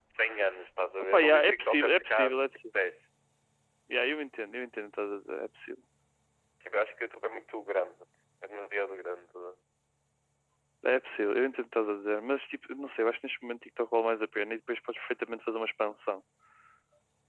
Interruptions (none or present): present